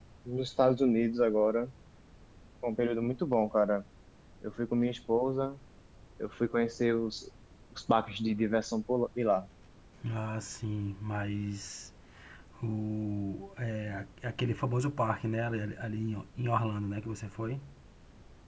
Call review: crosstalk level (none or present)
none